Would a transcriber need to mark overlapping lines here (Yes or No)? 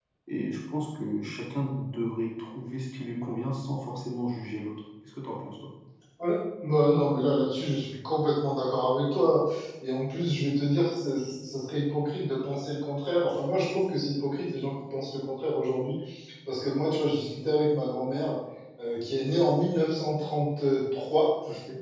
No